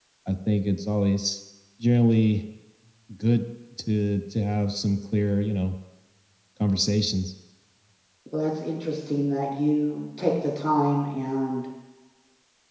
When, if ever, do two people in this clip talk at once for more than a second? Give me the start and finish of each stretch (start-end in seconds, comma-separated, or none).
none